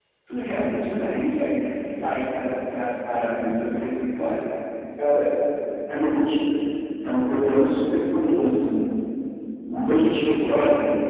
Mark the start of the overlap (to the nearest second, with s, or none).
none